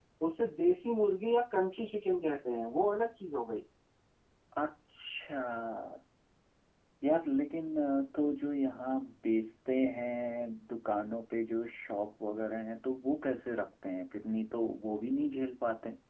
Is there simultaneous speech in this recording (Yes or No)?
No